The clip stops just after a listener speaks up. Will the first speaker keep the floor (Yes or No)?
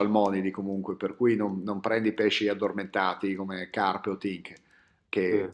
Yes